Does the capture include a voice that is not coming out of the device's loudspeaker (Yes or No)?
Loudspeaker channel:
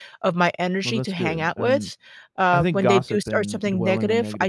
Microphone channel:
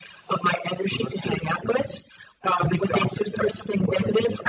No